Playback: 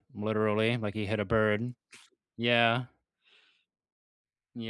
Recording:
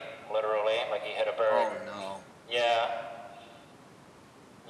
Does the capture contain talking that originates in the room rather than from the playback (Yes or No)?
Yes